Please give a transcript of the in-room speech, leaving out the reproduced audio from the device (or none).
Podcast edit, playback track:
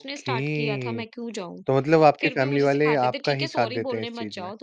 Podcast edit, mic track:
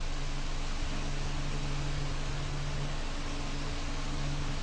none